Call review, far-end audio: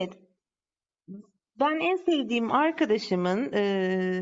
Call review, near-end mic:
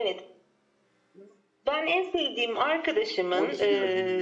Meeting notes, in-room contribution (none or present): present